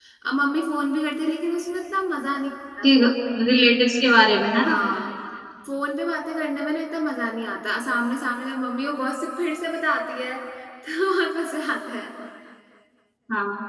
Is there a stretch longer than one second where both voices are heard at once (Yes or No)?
No